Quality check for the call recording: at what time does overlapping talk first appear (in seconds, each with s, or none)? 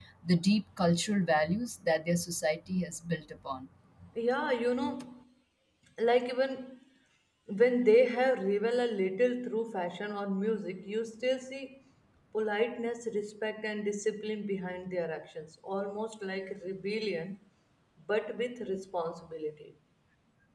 none